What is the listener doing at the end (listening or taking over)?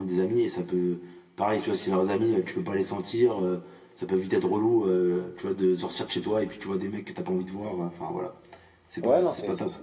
taking over